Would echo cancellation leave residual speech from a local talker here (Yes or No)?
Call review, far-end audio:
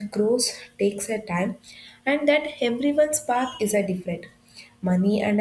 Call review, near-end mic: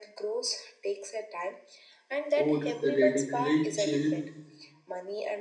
Yes